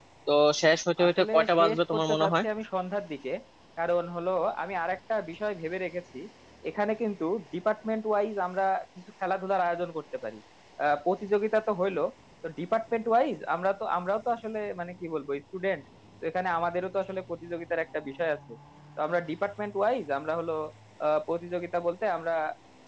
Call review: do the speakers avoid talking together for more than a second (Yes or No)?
No